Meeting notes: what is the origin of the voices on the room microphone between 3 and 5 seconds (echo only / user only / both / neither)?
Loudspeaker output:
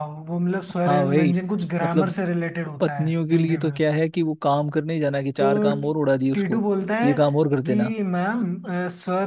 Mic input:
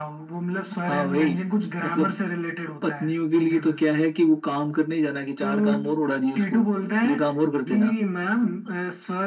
echo only